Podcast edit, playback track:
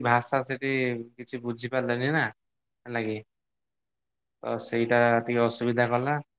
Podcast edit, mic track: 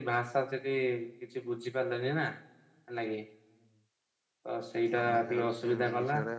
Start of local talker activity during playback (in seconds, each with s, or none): 5.0 s